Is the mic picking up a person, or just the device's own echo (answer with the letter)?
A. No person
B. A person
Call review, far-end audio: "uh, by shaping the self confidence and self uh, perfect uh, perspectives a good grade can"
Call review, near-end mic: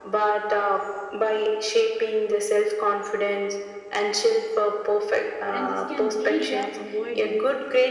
B